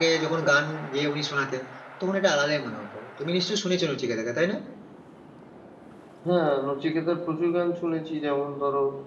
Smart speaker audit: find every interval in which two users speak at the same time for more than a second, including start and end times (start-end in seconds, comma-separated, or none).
none